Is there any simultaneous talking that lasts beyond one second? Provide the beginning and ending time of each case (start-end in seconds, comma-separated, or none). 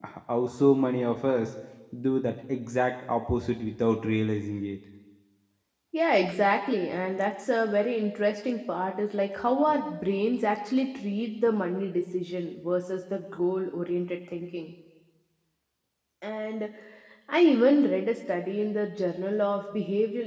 none